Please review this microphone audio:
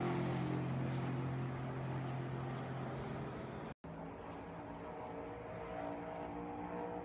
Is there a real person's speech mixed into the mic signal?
No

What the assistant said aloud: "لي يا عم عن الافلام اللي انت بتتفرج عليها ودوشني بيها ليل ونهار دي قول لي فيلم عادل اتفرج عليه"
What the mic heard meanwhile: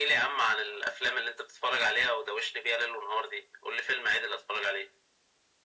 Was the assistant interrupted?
No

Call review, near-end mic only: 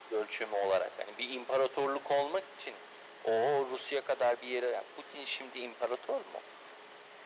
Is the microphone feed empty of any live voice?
Yes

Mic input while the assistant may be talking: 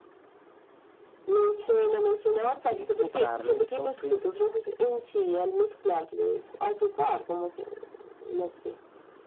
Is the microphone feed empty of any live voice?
No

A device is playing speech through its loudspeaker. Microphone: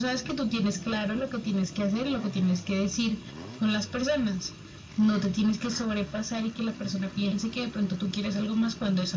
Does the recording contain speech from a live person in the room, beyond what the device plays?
No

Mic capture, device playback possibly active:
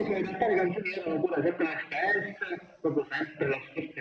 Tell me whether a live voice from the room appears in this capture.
No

